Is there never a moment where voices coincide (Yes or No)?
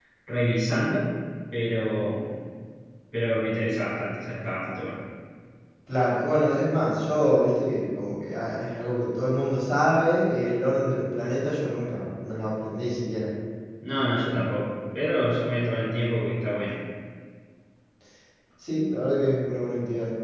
Yes